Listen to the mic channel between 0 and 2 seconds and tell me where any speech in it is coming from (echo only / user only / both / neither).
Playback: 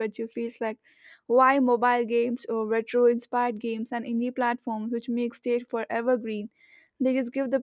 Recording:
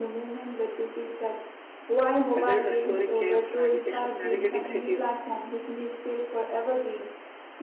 echo only